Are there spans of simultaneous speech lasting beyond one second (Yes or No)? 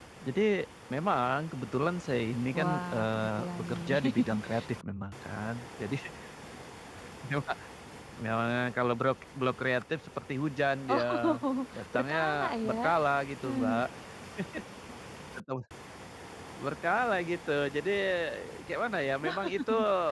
Yes